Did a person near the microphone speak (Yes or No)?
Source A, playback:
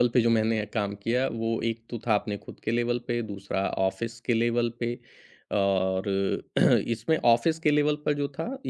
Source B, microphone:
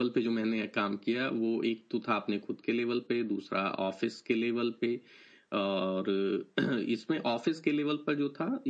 No